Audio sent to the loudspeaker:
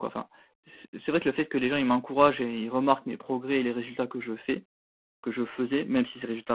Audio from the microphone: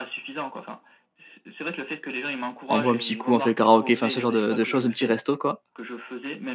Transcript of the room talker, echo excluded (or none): on boit un petit coup, on fait karaoké, enfin, ce genre de de choses, un petit resto, quoi